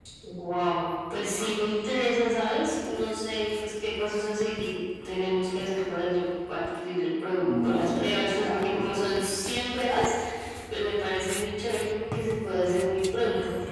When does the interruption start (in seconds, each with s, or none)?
7.4 s